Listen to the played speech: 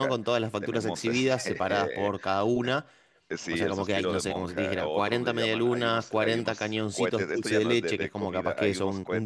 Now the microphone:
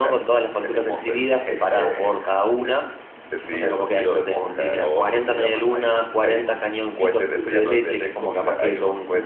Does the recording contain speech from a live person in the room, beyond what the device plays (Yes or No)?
No